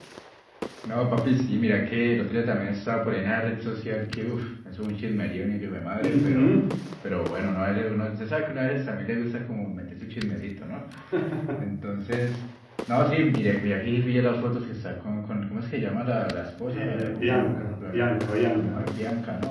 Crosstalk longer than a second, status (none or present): present